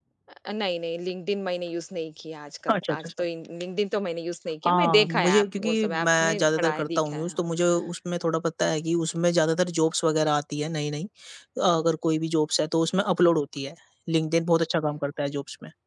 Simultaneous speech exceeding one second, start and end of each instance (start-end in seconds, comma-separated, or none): 4.7-7.4